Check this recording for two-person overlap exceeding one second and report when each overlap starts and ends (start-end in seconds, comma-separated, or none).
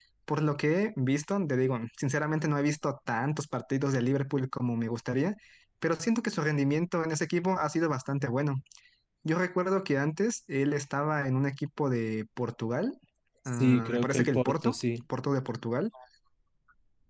13.5-14.8